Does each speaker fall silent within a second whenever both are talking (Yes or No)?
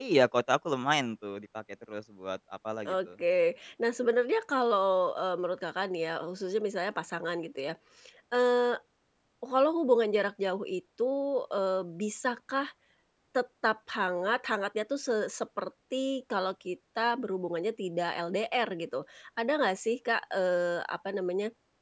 Yes